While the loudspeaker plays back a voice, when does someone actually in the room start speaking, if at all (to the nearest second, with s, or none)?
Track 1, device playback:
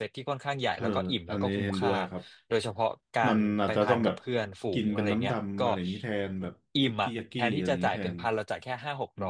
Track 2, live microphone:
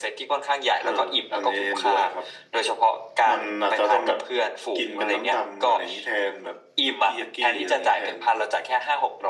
none